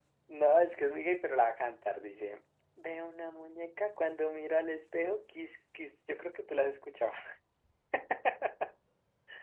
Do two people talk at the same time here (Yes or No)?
No